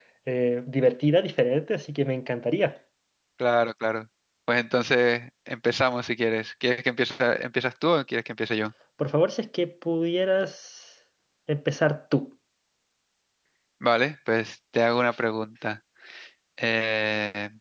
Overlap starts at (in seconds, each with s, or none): none